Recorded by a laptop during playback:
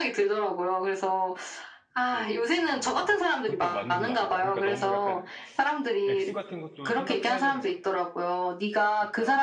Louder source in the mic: echo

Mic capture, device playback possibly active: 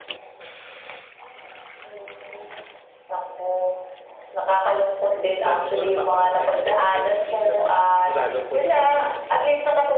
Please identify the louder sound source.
echo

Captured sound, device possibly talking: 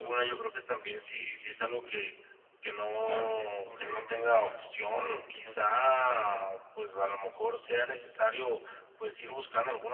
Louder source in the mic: echo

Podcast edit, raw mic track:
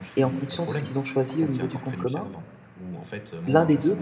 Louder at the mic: user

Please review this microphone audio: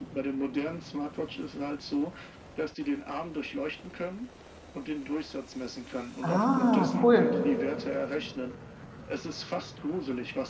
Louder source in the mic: user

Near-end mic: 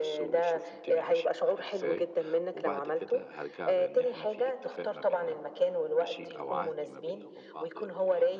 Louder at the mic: echo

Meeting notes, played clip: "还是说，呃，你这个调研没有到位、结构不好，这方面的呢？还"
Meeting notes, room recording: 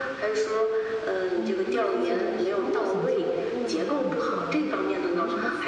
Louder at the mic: echo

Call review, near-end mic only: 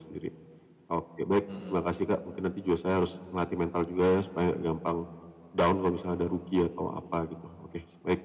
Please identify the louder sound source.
echo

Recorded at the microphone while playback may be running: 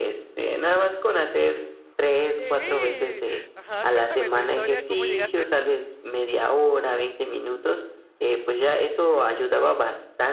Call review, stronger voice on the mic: echo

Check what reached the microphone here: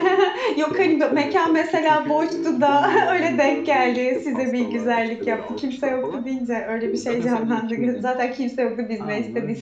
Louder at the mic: user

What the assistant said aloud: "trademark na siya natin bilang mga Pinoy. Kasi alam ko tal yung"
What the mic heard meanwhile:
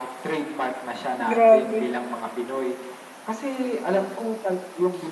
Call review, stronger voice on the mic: user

